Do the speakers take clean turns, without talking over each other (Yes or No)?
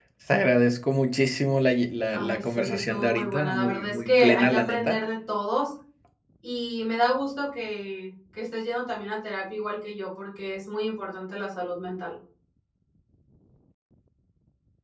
No